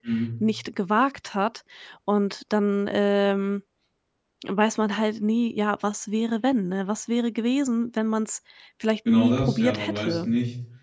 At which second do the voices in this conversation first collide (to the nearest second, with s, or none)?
9 s